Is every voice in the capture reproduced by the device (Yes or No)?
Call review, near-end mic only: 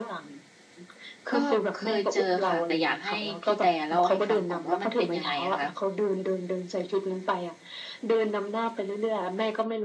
No